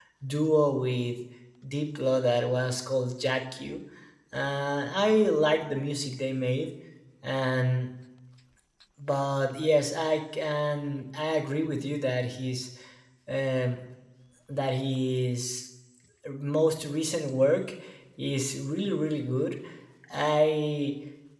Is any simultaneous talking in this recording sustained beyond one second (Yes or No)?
No